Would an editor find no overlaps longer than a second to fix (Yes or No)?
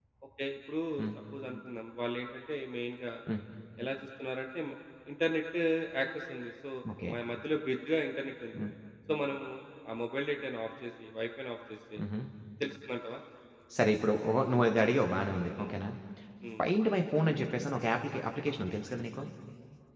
Yes